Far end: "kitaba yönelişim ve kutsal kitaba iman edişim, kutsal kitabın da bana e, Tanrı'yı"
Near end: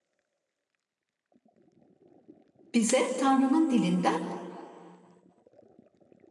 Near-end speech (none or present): present